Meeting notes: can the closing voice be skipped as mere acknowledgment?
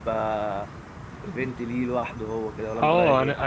No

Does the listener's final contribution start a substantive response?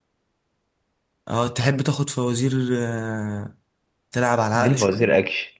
Yes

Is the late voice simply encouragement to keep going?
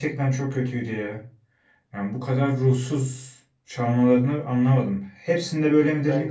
Yes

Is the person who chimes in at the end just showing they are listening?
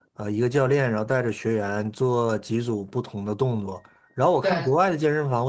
Yes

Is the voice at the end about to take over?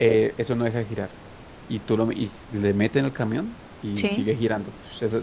No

